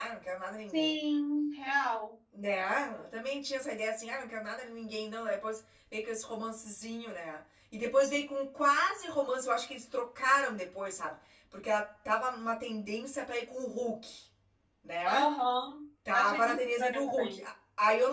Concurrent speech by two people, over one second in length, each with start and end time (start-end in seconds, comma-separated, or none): 16.1-17.4